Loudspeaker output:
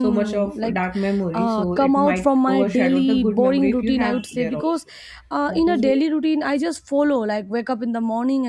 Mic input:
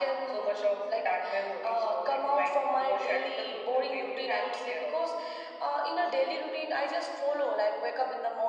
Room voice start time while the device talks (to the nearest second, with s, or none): none